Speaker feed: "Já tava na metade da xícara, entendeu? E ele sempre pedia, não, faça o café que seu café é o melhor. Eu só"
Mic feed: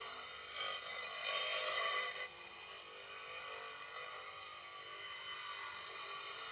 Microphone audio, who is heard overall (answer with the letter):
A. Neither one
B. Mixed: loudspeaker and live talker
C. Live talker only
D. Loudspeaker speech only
A